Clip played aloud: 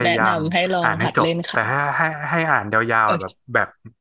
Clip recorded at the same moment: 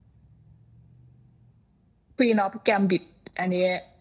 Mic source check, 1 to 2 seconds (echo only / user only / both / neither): neither